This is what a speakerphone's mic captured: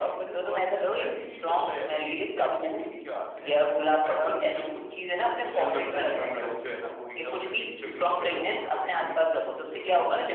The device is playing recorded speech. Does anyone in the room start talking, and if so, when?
none

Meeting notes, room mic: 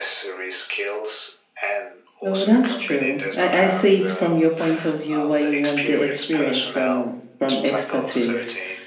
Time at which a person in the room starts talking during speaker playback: 2 s

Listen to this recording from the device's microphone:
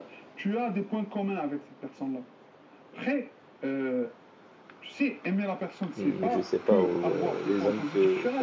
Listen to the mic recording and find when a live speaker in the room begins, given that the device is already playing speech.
6 s

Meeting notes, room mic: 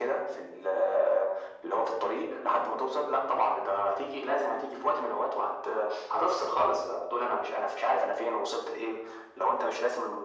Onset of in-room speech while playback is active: none

